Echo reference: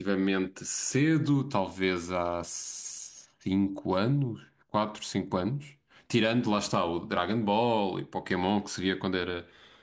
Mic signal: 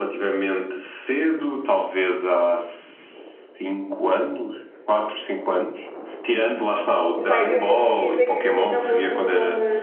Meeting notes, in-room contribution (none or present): present